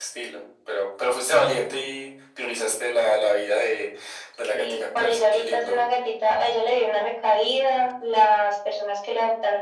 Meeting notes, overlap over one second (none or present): present